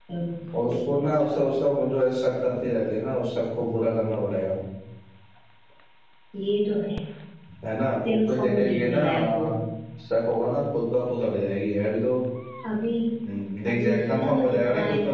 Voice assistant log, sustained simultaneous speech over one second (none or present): present